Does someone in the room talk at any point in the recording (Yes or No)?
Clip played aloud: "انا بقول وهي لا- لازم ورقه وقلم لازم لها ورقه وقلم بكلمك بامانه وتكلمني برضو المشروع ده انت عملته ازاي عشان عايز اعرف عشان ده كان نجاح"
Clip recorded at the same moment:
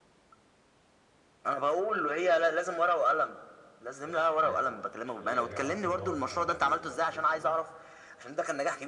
Yes